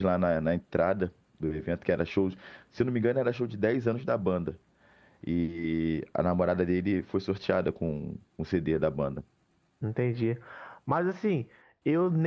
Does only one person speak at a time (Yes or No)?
Yes